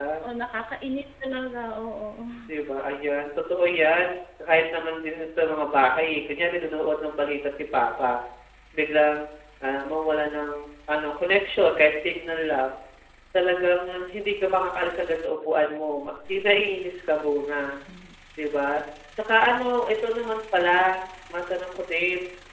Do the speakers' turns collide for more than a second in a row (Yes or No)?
No